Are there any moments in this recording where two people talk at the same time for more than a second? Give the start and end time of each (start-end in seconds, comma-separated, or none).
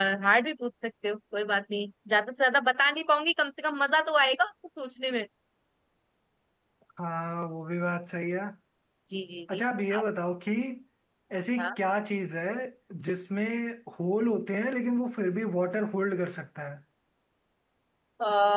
none